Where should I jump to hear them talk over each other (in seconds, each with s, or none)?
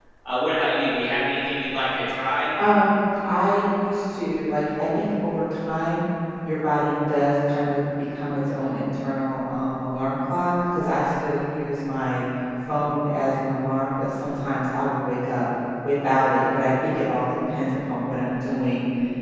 none